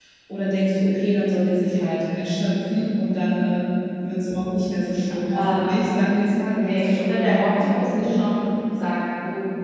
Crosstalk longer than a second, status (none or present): present